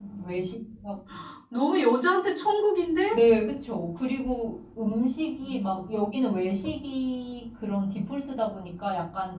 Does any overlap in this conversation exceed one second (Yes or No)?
No